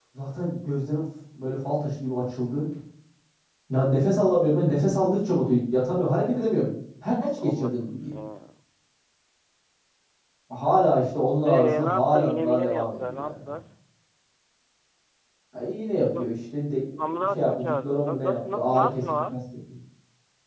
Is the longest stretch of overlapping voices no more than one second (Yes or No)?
No